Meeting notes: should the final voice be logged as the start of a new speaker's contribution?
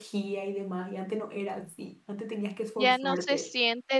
Yes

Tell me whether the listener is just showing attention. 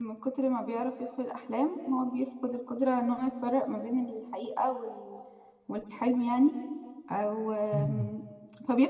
Yes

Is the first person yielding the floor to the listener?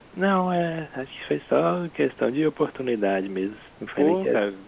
Yes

